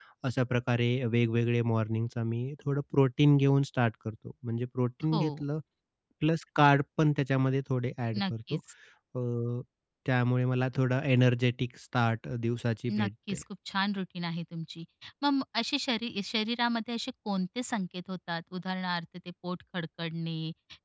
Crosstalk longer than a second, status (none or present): none